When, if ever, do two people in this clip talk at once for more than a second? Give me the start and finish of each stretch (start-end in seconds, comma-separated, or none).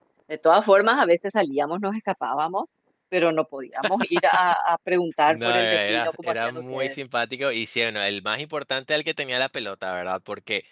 5.3-6.9